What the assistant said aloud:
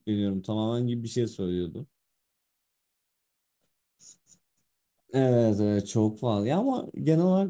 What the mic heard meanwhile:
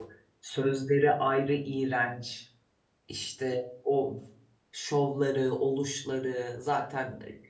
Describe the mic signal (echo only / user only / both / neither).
user only